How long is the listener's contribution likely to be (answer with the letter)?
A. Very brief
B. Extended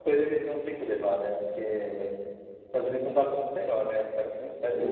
B